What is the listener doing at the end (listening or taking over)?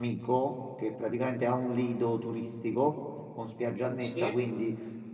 listening